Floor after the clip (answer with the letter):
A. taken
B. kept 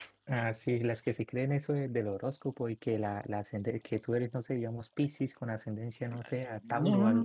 A